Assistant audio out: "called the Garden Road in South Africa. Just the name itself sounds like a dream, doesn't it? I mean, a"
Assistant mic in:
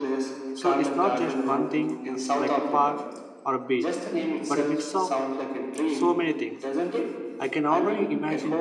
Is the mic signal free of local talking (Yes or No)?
No